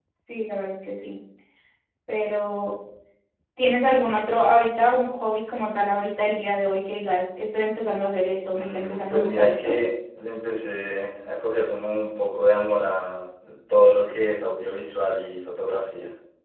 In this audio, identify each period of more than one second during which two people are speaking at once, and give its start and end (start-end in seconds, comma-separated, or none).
8.5-9.8